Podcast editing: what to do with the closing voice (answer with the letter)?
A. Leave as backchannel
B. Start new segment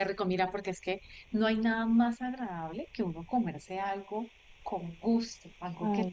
A